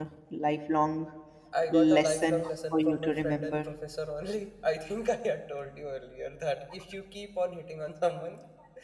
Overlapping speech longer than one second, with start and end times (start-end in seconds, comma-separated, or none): 1.7-3.6